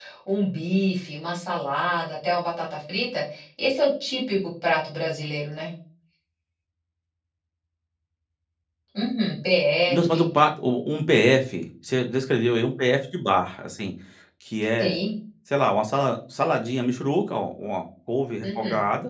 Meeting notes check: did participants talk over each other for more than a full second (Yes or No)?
No